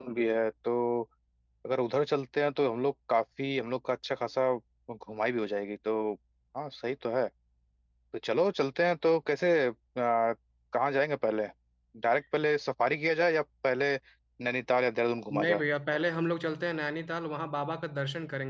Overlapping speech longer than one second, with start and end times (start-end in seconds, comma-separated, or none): none